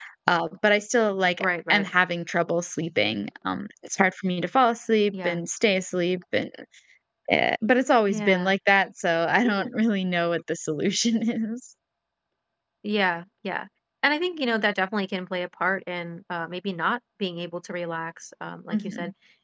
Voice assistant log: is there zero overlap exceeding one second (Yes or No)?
Yes